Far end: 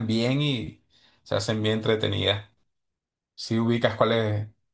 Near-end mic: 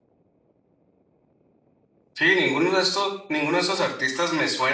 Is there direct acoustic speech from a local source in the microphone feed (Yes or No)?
Yes